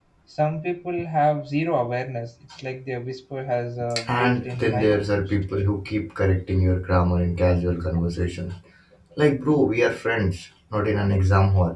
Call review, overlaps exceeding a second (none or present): present